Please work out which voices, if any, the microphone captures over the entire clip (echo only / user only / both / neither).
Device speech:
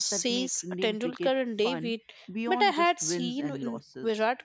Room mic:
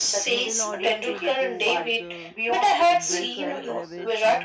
both